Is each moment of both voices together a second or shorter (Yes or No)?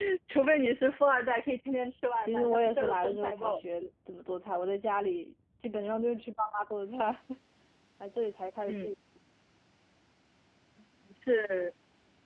No